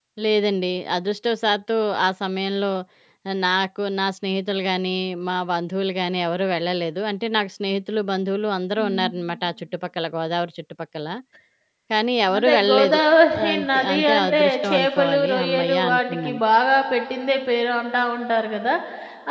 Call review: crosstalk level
present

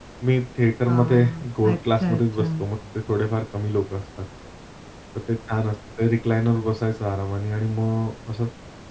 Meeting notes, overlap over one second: present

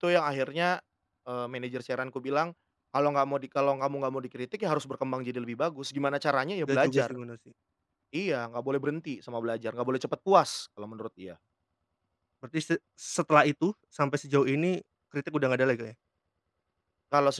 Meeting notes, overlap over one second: none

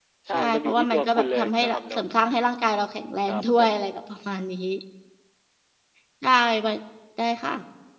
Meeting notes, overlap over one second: present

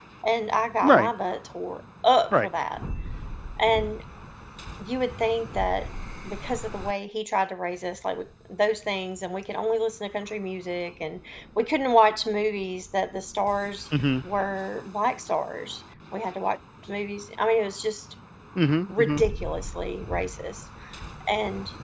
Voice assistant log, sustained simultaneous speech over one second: none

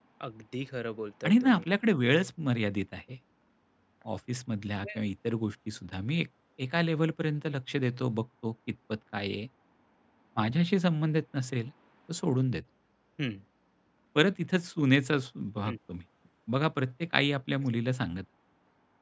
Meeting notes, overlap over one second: none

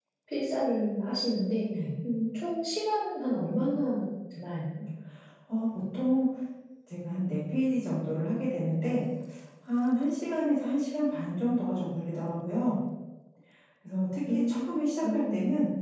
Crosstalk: present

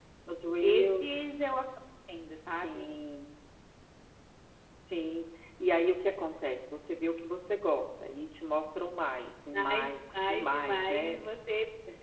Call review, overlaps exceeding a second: present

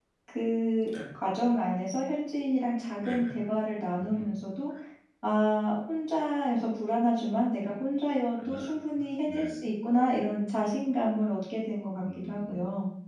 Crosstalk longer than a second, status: none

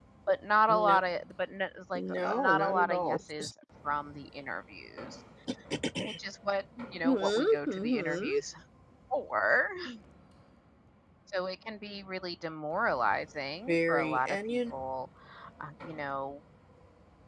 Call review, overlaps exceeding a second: present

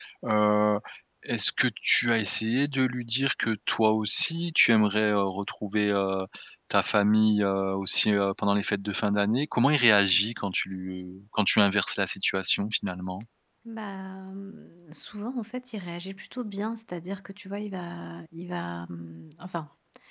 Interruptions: none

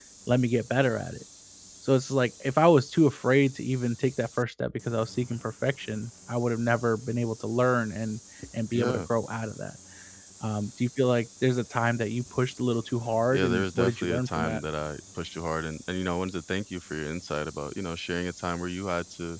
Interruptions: present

